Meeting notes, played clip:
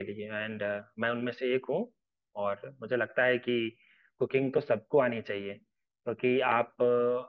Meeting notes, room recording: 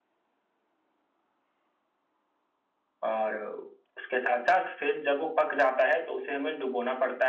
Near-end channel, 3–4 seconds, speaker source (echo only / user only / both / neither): user only